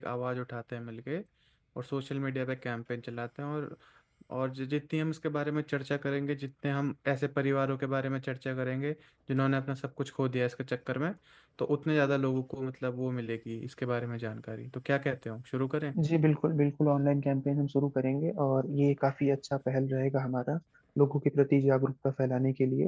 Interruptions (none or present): none